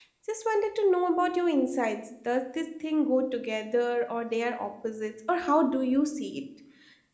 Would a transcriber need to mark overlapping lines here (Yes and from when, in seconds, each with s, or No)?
No